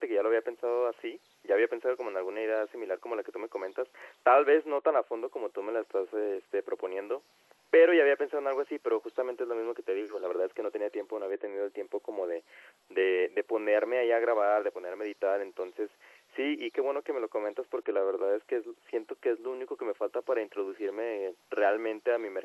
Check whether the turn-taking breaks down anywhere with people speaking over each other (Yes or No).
No